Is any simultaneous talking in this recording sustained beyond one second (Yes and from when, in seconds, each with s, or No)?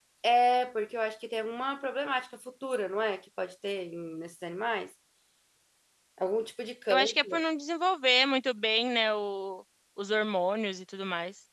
No